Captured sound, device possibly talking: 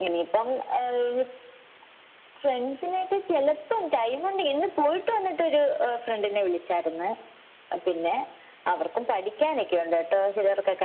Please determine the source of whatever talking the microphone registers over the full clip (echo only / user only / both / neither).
echo only